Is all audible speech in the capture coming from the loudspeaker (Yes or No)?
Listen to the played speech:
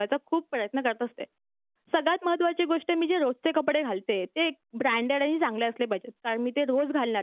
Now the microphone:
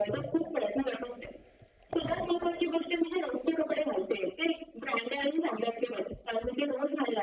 Yes